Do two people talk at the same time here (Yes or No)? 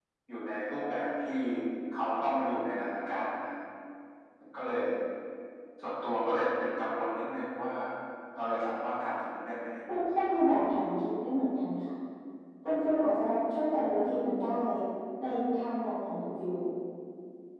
No